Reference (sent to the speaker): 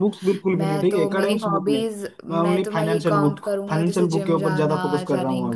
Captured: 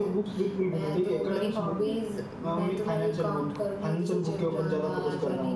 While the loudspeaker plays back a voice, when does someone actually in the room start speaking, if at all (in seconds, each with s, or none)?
none